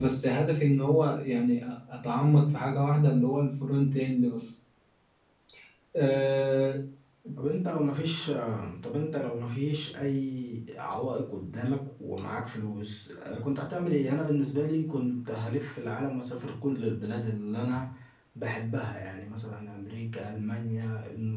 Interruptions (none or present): none